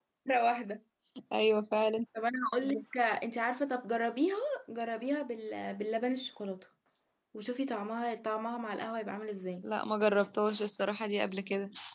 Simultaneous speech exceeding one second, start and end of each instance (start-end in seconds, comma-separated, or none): none